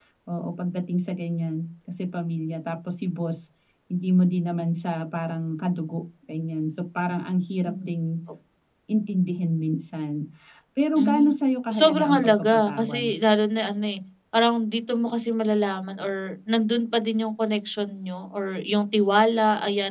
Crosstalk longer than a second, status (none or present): present